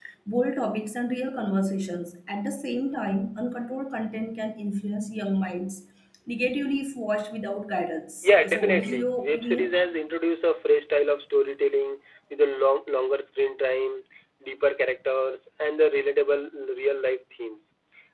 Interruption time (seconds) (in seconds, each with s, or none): 8.2 s